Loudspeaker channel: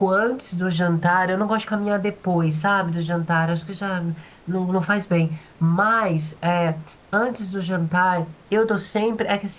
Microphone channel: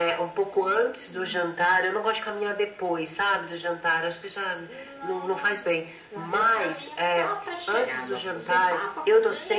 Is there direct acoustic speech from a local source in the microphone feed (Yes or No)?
Yes